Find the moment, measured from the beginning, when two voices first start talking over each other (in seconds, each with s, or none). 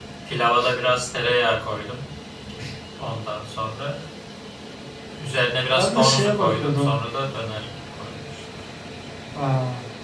5.8 s